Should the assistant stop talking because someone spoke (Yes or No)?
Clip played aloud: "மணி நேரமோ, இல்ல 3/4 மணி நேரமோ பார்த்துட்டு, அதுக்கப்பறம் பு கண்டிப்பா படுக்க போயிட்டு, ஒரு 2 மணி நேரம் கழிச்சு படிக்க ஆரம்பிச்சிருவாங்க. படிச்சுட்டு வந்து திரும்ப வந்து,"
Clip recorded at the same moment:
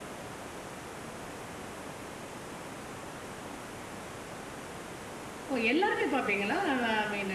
Yes